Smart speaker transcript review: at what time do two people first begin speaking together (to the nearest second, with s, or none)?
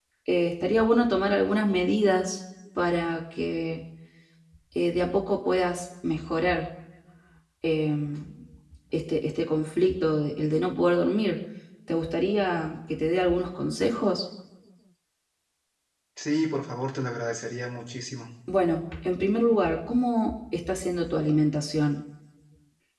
none